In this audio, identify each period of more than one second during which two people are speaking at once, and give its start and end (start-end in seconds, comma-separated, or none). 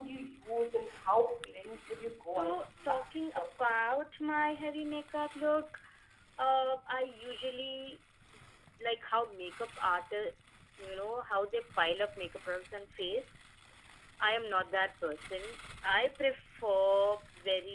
2.3-3.8